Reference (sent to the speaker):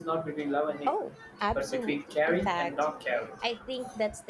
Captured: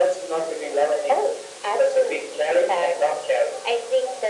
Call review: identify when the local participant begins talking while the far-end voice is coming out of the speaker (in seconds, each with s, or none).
none